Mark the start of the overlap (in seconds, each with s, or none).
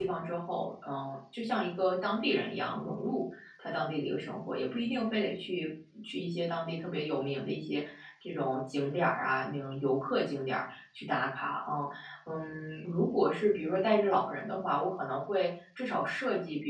none